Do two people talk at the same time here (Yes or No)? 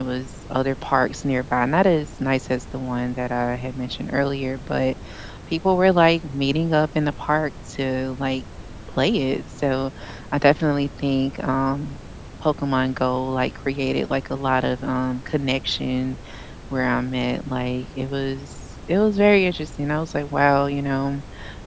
No